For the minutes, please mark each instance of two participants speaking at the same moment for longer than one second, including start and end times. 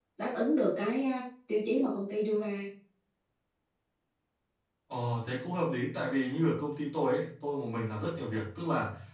none

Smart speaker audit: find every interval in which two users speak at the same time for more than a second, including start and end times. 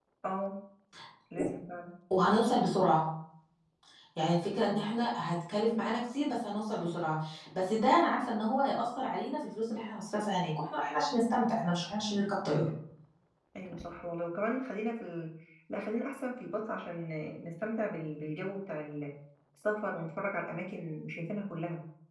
none

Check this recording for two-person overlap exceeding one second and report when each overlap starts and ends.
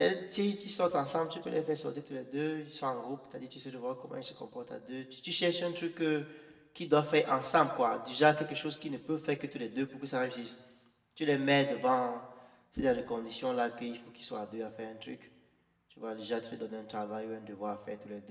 none

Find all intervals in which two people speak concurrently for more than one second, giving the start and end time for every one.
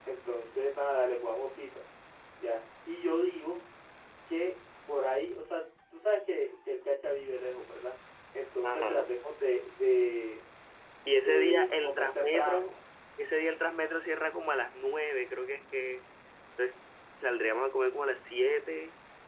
11.1-12.7

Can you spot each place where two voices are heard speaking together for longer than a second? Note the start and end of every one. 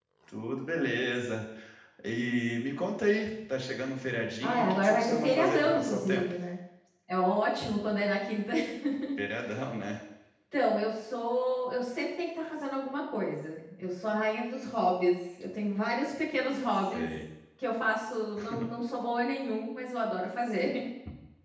4.4-6.2

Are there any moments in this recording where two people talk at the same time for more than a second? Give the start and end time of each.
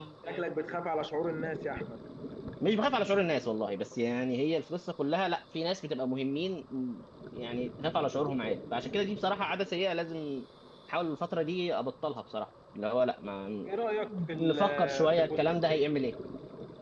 14.4-15.6

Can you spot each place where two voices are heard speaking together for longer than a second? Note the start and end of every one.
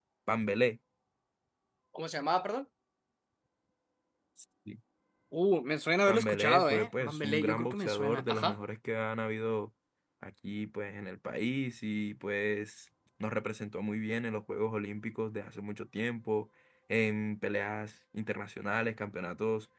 6.1-8.6

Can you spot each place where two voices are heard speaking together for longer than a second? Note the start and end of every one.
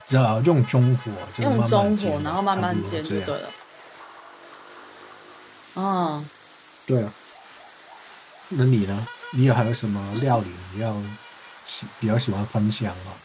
1.4-3.3

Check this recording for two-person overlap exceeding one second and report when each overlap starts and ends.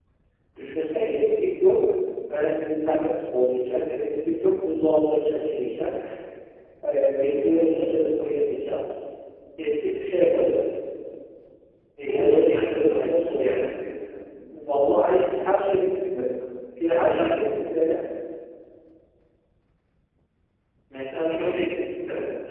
12.1-13.6

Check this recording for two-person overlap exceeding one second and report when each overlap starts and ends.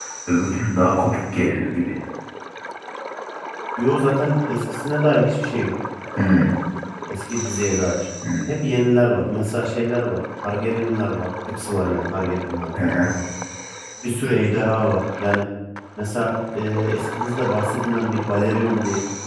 none

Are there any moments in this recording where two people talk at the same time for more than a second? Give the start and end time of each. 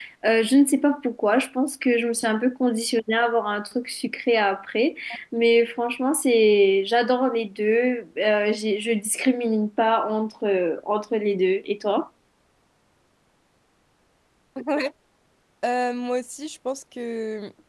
none

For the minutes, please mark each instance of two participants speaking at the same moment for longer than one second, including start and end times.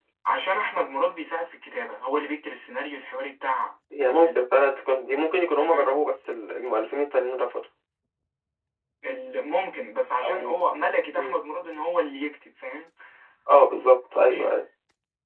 none

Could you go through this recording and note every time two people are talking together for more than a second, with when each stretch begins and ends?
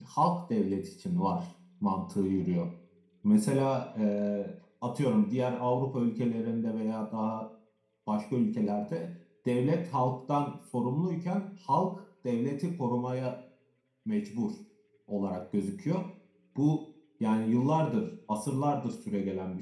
none

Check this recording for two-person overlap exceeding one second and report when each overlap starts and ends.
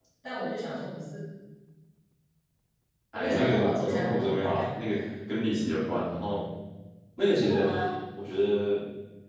3.1-4.7

